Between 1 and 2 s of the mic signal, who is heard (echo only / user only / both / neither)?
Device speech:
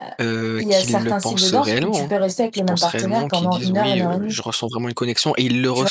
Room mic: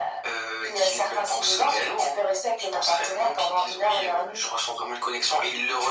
echo only